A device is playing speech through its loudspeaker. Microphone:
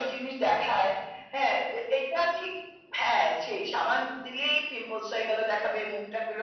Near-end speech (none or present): none